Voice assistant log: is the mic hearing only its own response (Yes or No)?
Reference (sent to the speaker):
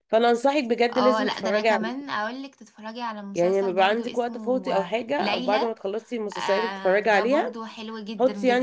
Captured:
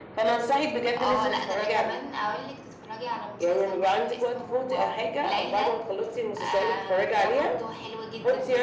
Yes